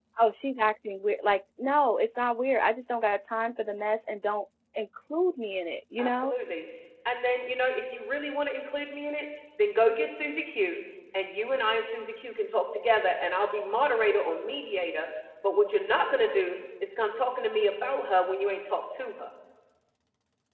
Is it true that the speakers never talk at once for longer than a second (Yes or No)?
Yes